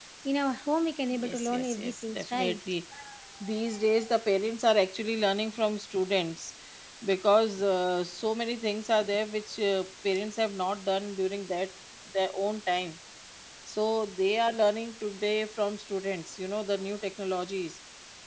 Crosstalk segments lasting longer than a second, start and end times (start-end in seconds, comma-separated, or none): 1.1-2.6